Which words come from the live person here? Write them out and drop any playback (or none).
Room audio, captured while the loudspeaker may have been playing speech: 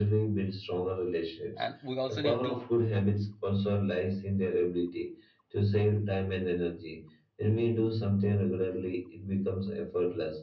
And we also need to